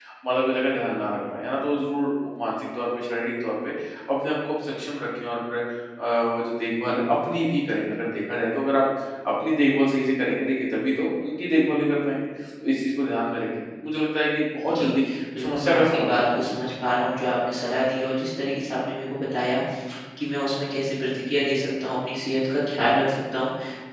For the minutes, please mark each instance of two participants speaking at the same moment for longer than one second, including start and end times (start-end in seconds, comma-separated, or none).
15.4-16.7